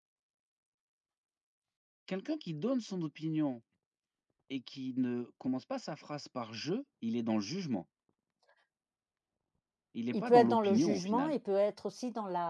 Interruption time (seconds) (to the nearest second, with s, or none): 10 s